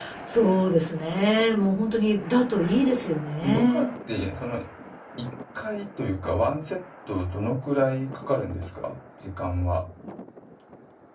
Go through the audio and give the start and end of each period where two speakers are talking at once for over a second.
none

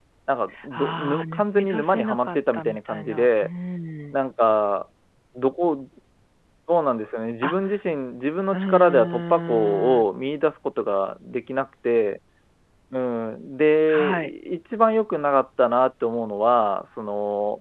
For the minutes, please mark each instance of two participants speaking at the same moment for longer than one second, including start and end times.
0.7-3.5, 8.5-10.0

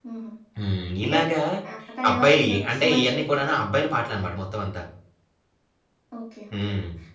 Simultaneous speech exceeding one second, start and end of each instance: 2.1-3.4

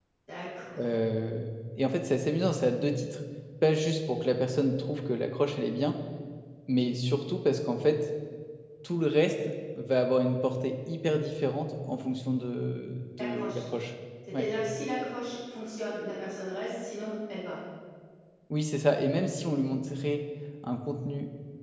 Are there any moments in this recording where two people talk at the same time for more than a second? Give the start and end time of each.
none

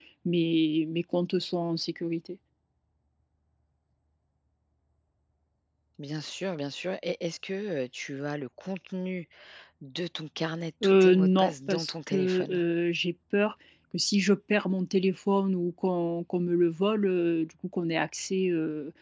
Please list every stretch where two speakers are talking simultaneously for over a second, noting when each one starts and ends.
10.8-12.6

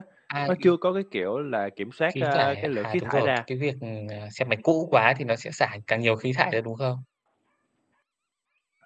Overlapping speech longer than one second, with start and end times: 2.1-3.4

